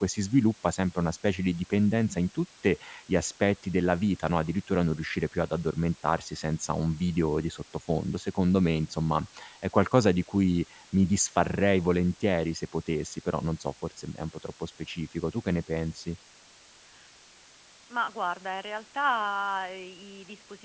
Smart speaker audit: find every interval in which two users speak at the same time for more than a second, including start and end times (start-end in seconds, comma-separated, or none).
none